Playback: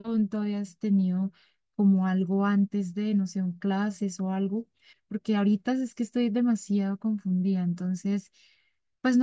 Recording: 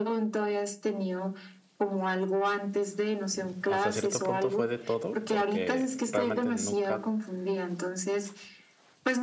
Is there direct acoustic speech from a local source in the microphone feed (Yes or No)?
Yes